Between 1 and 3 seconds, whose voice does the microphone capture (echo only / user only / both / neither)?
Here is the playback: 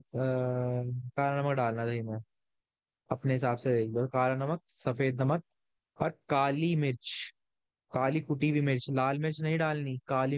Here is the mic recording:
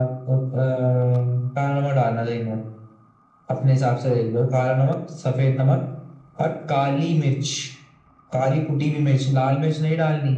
echo only